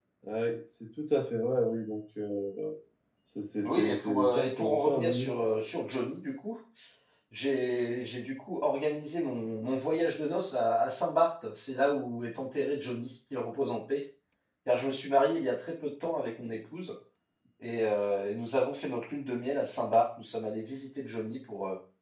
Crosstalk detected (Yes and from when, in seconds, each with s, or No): Yes, from 3.6 s